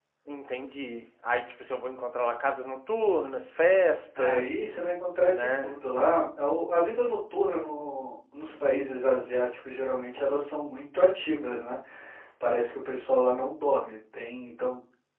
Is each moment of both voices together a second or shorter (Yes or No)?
Yes